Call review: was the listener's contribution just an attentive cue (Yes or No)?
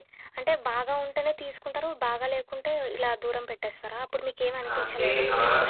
No